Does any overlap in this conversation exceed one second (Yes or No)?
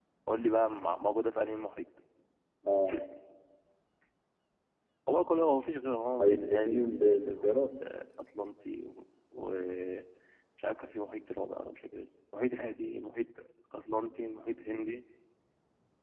Yes